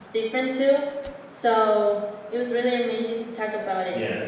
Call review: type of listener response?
taking over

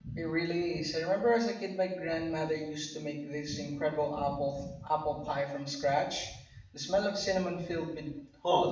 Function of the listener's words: taking over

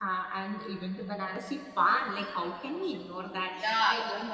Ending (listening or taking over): taking over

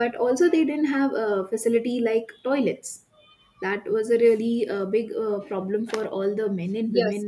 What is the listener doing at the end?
taking over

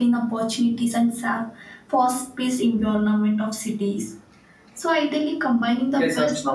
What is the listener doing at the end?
listening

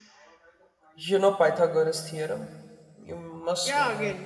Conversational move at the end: taking over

